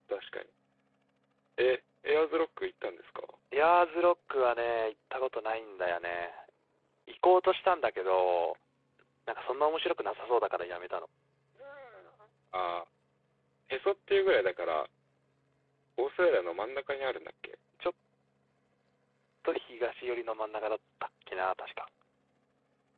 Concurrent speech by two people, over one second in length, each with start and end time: none

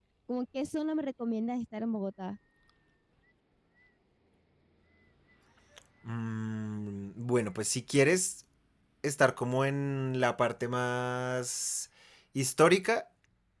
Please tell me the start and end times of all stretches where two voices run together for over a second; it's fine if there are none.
none

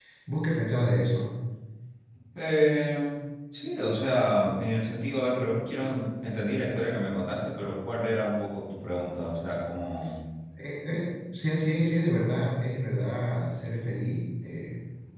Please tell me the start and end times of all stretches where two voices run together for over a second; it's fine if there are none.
none

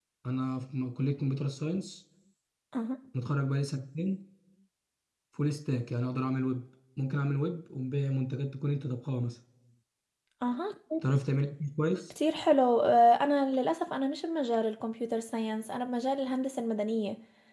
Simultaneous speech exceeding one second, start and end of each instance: none

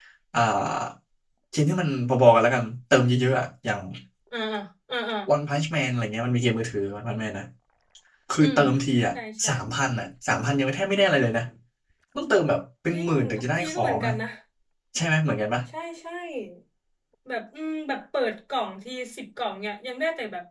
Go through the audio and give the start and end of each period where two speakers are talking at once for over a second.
12.9-14.1

